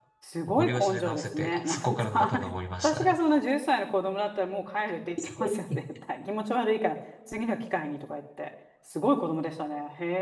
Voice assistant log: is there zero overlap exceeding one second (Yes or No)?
No